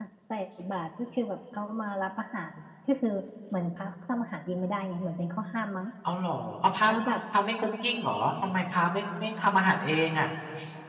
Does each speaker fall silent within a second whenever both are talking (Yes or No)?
Yes